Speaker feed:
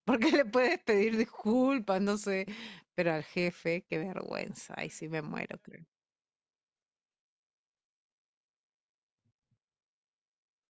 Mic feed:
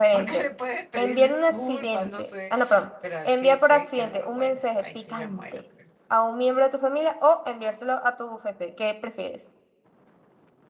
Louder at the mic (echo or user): user